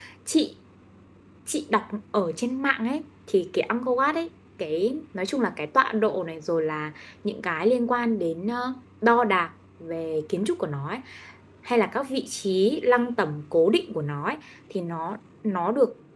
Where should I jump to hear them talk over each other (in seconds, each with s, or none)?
none